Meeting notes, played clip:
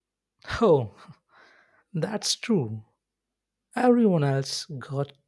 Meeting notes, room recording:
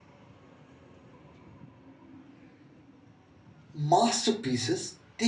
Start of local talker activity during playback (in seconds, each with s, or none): 3.7 s